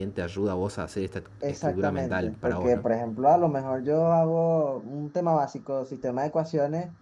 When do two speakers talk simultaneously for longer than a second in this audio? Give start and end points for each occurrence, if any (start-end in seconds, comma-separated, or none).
1.5-2.9